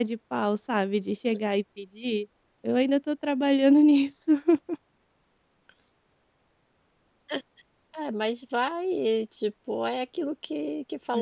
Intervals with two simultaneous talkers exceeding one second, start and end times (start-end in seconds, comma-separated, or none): none